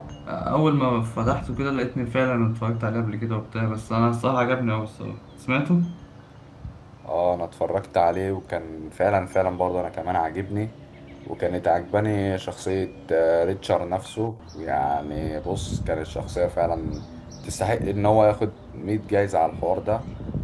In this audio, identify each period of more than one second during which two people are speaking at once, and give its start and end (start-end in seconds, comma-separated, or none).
none